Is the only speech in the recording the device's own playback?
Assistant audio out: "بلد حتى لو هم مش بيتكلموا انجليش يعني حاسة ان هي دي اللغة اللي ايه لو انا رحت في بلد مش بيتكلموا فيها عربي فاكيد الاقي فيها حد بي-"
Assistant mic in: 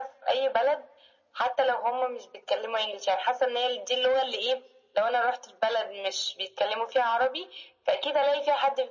Yes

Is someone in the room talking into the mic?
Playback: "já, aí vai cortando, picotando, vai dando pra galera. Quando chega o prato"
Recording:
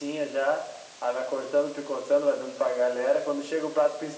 No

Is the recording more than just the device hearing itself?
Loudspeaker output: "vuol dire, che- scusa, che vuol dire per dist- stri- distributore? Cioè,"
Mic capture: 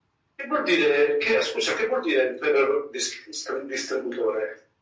No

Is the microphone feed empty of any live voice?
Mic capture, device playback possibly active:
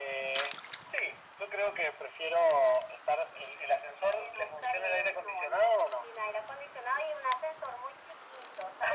Yes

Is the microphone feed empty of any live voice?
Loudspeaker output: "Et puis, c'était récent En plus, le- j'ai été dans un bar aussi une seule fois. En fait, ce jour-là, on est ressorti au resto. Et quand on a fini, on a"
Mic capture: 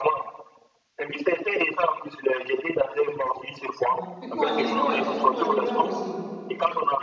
No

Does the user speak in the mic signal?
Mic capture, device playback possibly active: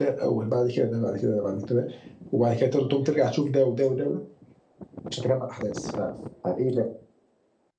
Yes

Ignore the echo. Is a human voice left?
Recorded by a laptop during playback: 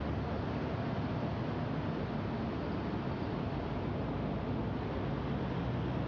No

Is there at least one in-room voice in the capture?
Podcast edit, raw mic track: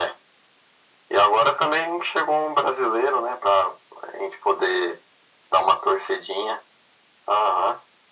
No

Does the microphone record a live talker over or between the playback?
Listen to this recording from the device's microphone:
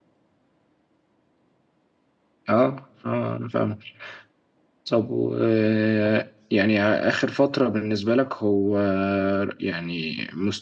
No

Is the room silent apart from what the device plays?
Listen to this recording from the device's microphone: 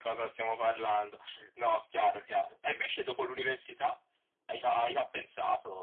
Yes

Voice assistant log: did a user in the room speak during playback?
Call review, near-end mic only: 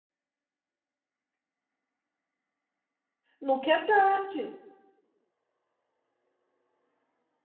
Yes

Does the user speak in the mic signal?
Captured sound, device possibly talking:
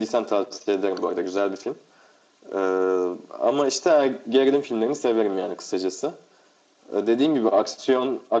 No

